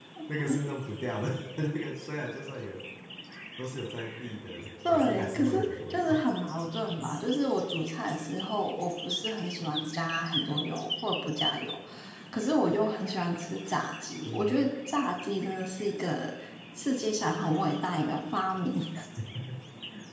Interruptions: present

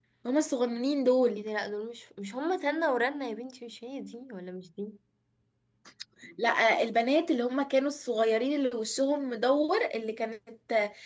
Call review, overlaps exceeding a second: none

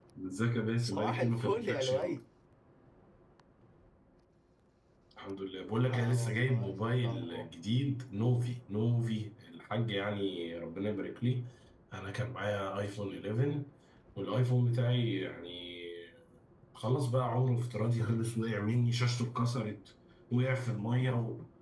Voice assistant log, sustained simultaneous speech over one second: present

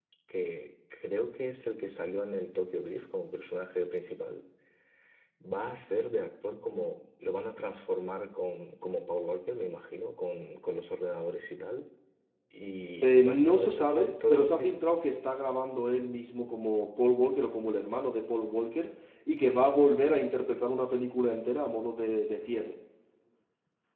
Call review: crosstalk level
present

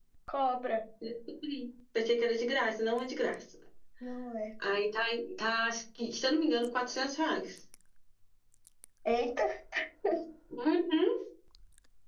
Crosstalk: none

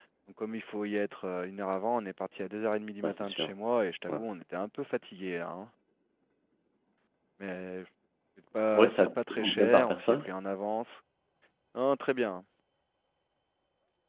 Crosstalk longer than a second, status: present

